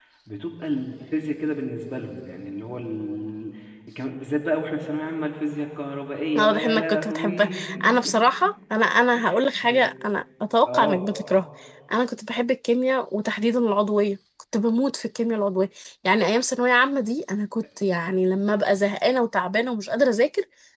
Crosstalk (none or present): present